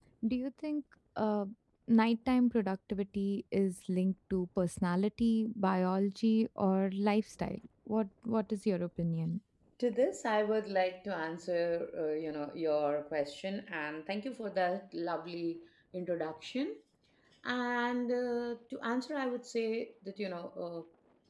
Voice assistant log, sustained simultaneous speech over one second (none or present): none